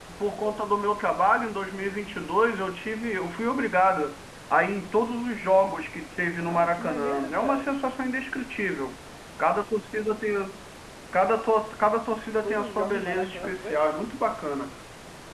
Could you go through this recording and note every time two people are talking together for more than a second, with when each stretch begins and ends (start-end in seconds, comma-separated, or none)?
6.4-7.7, 12.4-13.8